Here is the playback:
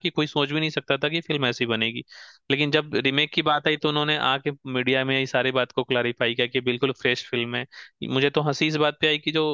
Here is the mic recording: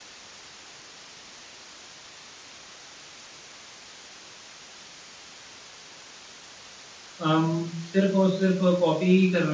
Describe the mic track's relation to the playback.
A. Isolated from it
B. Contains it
A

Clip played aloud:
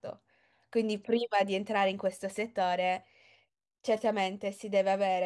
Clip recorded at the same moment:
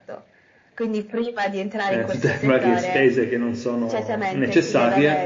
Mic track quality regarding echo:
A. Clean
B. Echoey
B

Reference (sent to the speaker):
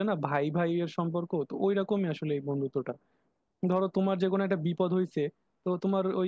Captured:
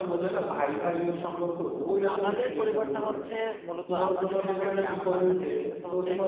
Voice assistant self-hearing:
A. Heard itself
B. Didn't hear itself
A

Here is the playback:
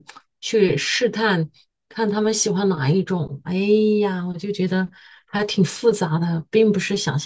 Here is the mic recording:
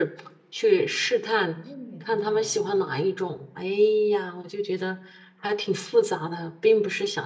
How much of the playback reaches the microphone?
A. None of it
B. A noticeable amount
B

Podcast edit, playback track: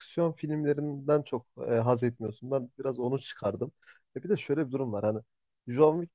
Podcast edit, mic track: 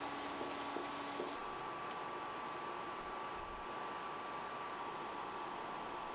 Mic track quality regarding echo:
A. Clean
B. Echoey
A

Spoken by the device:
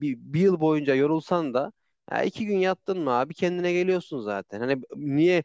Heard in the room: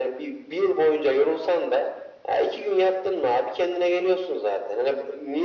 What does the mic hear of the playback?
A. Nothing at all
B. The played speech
B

